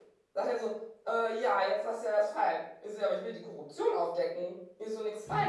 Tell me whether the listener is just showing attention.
Yes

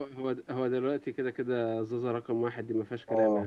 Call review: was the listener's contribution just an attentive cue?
No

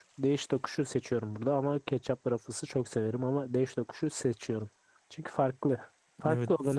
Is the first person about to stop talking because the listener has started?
Yes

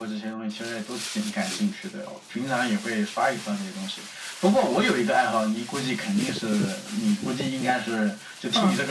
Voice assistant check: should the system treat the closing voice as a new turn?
Yes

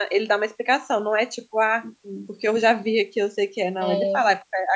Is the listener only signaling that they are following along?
Yes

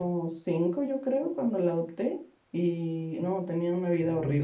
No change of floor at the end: No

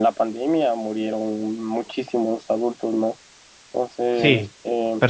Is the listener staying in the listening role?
No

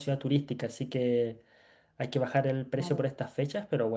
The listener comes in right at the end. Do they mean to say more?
No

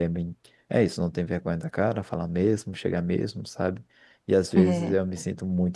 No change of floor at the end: Yes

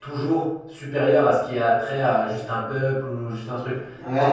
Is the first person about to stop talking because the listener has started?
Yes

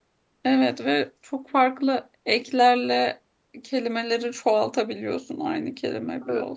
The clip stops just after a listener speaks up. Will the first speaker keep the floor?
No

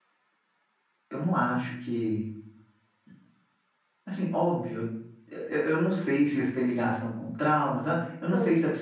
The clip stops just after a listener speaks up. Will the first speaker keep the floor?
Yes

